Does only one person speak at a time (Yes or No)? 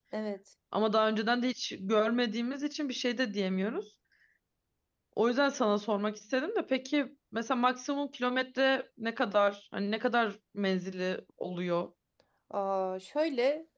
Yes